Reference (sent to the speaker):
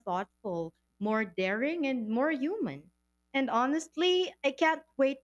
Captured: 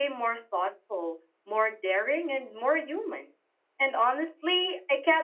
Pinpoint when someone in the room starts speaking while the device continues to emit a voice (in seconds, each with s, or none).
none